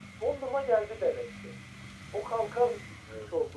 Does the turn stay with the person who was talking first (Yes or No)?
No